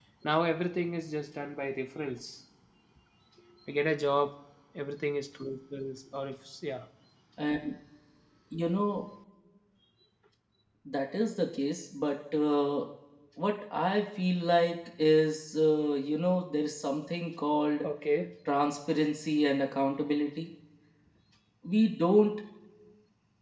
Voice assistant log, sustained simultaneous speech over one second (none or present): none